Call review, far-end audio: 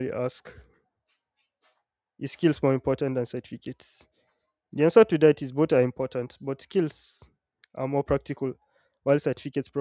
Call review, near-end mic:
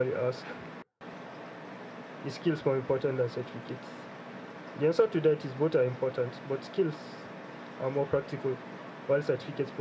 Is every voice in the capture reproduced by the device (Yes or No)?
Yes